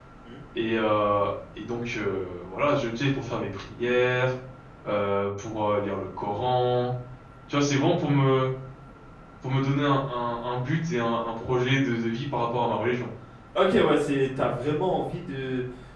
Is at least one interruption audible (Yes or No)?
No